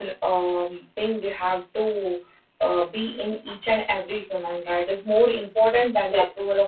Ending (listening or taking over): listening